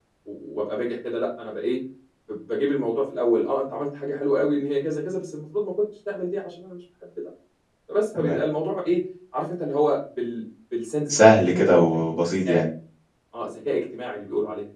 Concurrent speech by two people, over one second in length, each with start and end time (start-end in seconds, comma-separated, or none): 11.1-12.6